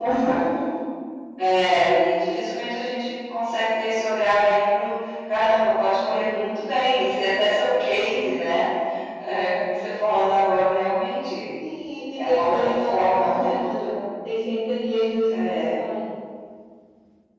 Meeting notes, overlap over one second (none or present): present